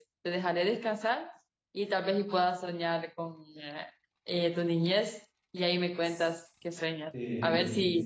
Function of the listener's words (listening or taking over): listening